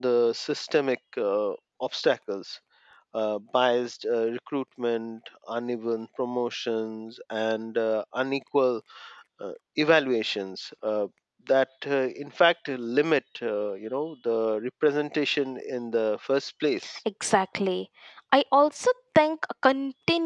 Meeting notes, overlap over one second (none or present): none